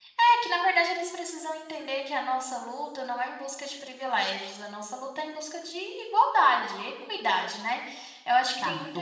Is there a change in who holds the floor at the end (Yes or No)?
No